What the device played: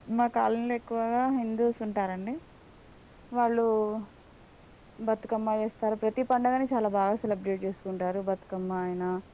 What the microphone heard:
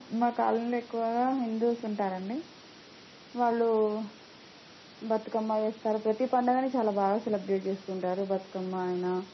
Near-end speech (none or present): none